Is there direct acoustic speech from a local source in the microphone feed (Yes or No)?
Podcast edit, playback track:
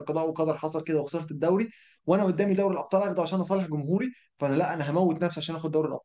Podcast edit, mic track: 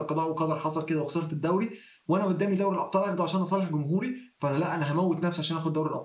No